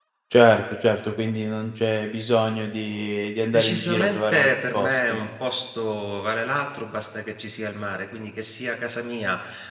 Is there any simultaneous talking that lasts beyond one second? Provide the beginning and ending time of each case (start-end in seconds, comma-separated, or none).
3.5-5.2